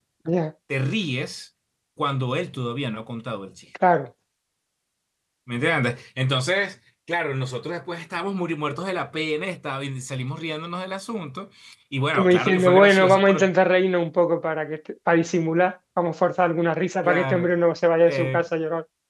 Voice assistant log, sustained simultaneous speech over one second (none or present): present